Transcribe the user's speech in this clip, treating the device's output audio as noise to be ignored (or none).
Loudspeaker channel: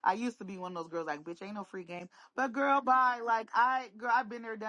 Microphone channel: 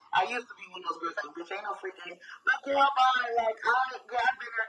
none